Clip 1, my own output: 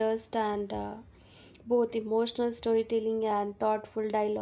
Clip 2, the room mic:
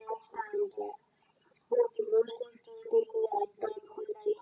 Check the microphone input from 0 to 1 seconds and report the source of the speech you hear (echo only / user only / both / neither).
echo only